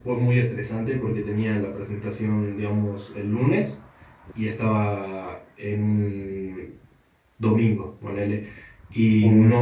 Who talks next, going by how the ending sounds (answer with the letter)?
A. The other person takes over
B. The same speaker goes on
B